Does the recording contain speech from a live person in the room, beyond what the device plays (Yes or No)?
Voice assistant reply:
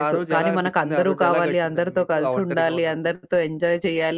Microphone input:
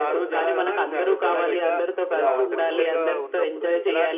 Yes